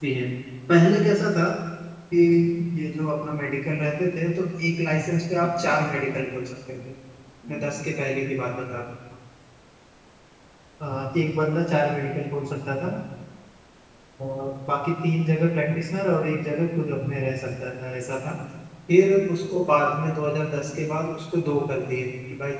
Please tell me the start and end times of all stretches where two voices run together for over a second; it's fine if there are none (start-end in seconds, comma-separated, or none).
none